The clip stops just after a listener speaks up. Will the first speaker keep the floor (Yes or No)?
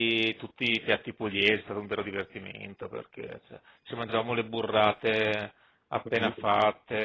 Yes